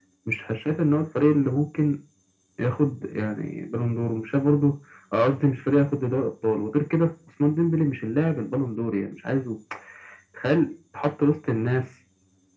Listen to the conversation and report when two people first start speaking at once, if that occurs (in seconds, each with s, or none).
none